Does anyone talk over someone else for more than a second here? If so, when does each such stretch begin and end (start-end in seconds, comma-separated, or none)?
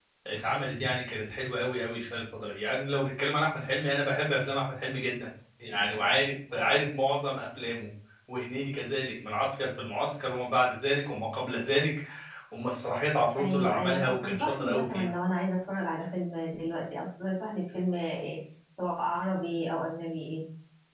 13.4-15.1